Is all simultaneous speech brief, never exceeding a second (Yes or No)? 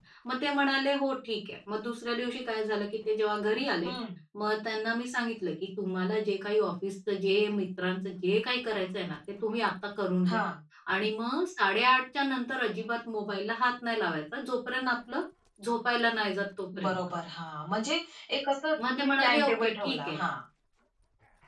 No